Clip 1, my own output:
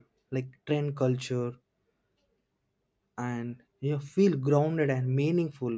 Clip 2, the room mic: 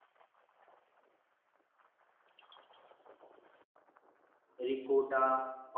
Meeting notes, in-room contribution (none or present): present